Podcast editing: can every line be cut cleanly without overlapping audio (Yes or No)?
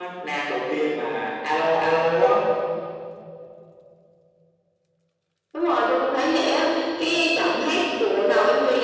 Yes